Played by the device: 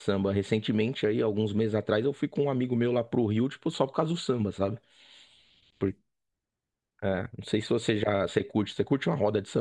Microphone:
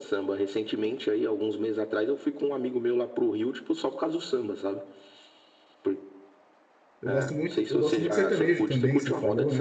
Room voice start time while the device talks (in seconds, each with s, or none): 7.0 s